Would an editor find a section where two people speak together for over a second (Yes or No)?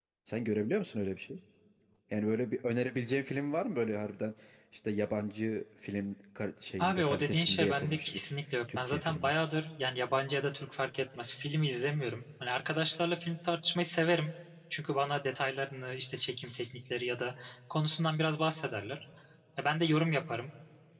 Yes